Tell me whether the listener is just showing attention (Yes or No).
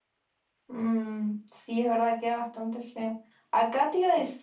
Yes